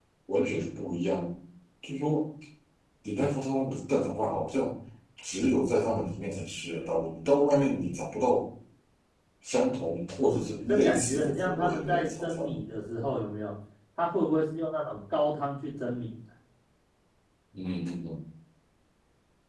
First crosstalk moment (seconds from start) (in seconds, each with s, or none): 10.2 s